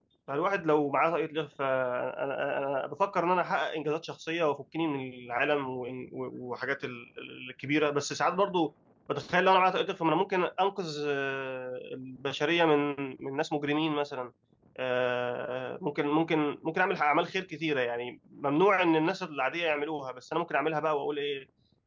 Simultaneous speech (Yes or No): No